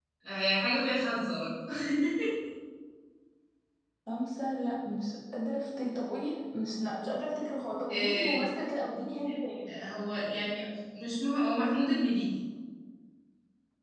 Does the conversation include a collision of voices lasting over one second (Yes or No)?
No